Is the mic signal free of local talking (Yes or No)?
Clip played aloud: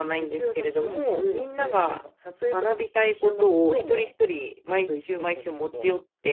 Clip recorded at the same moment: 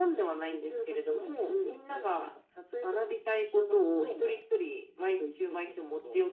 Yes